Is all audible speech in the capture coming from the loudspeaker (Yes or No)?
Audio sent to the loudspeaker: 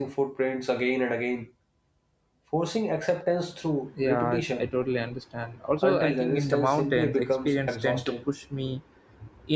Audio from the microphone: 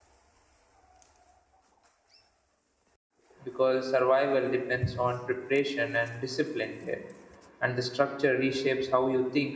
No